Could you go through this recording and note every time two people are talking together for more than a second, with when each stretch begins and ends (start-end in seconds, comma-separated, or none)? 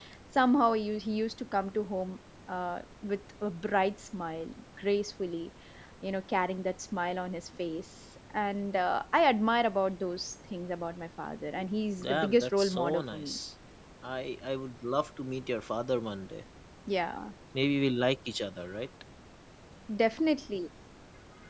12.0-13.4